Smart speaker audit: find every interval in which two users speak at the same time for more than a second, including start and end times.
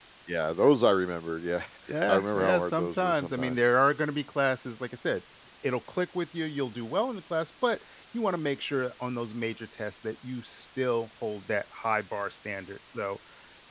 2.1-3.6

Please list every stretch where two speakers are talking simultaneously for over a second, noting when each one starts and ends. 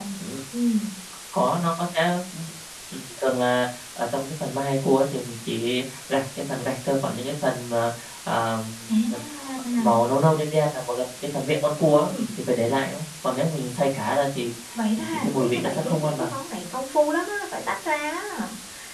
15.1-16.3

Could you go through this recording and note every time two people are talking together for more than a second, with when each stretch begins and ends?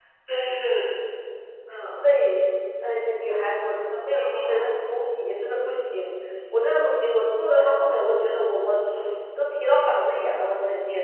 none

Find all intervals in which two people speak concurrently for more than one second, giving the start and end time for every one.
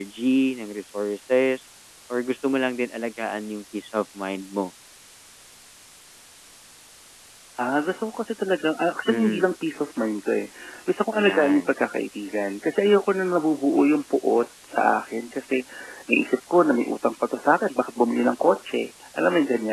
none

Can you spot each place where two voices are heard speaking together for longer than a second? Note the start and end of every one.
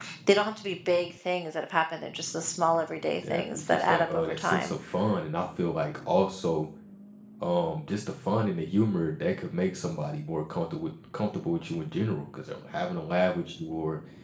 3.3-4.8

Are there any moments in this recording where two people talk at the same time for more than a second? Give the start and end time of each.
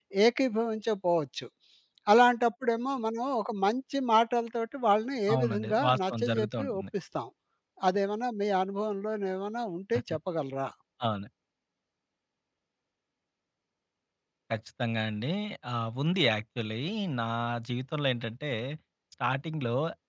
5.3-6.8

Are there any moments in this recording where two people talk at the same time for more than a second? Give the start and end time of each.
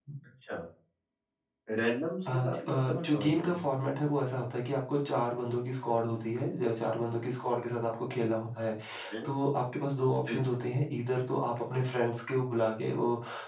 2.3-3.6

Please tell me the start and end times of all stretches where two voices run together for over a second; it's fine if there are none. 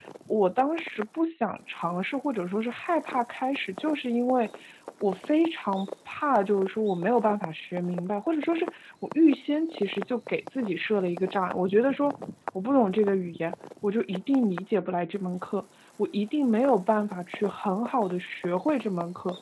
none

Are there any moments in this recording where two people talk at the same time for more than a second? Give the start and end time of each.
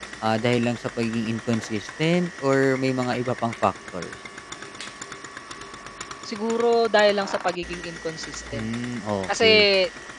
none

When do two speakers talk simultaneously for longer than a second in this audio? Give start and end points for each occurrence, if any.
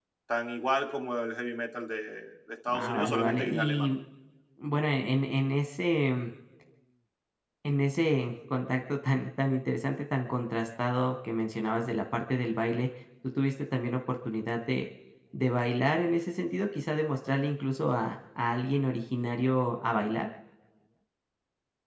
2.7-3.9

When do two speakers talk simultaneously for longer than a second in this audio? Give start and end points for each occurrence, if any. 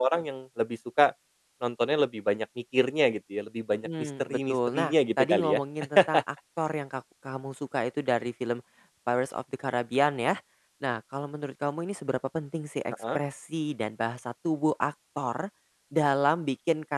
3.8-5.6

